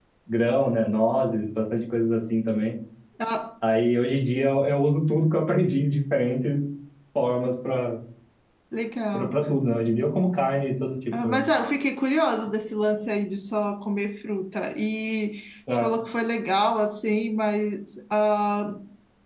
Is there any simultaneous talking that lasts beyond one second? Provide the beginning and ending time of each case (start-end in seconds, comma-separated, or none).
none